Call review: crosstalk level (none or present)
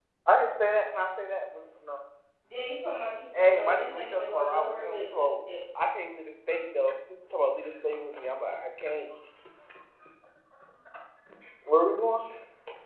present